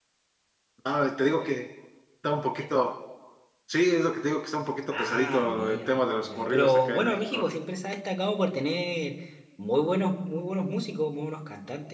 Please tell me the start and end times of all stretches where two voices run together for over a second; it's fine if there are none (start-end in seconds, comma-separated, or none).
4.9-7.4